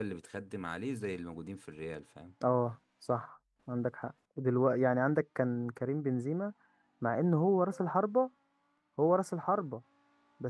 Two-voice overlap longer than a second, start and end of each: none

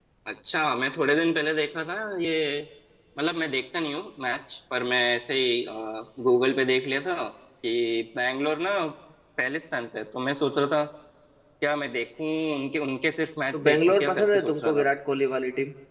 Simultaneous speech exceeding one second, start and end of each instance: 13.5-14.9

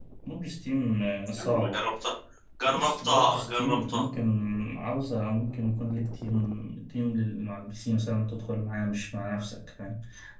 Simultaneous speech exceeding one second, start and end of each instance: 2.6-4.0

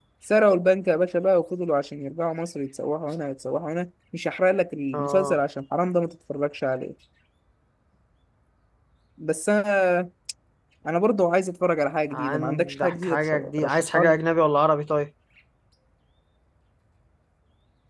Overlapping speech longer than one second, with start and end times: 12.1-14.2

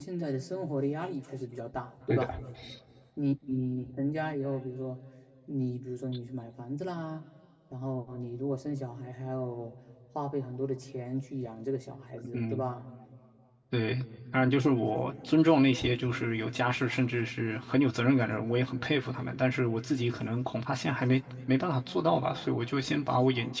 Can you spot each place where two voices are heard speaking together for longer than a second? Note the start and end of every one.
none

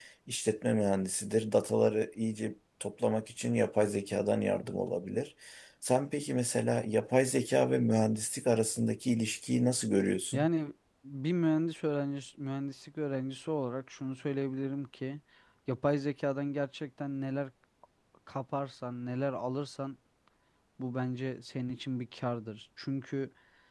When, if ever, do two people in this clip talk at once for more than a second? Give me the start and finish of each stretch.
none

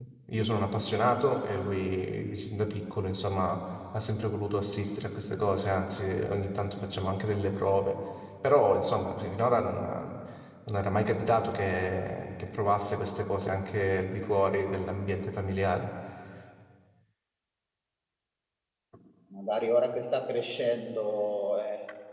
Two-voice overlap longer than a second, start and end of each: none

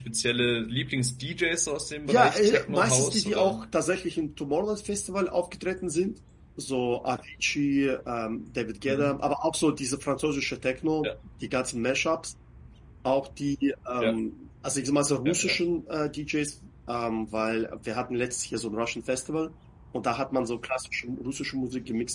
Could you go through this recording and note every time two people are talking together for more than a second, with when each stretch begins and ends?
2.1-3.6

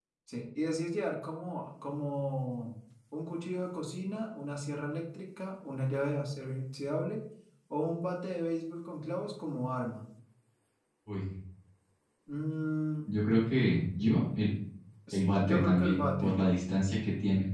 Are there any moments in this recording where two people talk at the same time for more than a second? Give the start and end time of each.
15.1-16.4

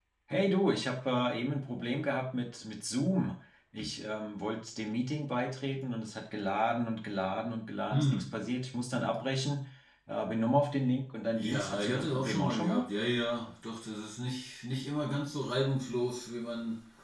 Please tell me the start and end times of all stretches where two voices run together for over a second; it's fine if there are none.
11.3-12.8

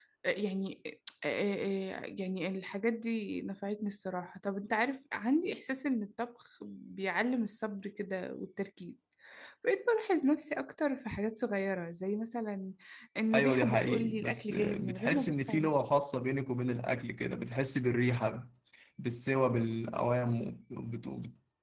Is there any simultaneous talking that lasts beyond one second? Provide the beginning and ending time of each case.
13.3-15.7

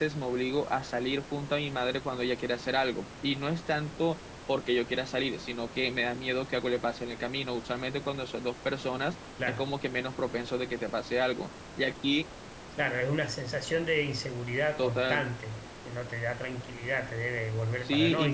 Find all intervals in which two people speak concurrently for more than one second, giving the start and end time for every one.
none

